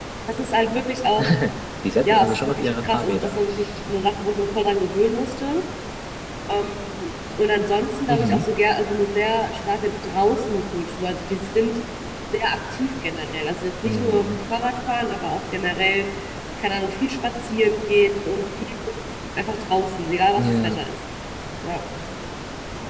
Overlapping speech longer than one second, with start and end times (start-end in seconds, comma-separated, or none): 2.0-3.4